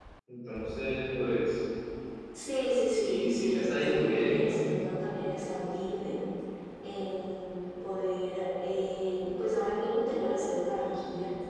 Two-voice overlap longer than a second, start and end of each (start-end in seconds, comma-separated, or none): 2.9-4.6